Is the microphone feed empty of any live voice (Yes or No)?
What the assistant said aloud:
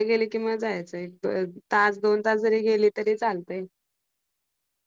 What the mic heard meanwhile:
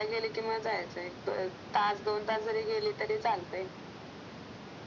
Yes